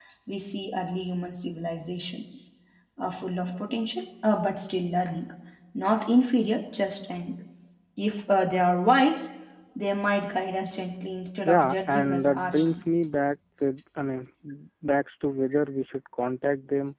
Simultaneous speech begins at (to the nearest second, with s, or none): 11 s